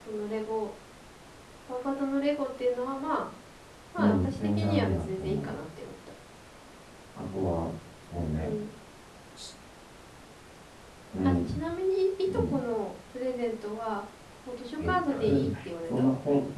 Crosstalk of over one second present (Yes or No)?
Yes